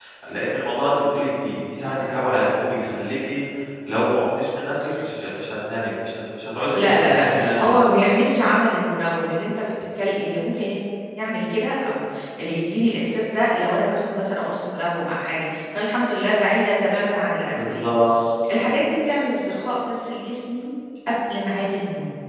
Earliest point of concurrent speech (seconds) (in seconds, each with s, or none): 6.8 s